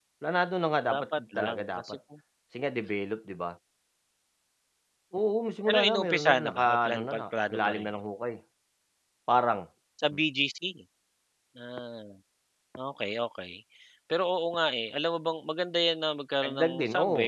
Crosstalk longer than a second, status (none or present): present